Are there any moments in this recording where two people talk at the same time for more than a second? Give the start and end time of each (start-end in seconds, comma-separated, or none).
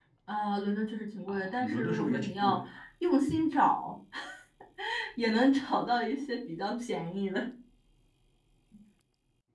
1.3-2.6